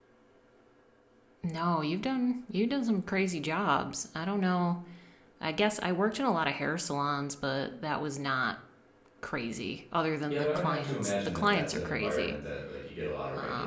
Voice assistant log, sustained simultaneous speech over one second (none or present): present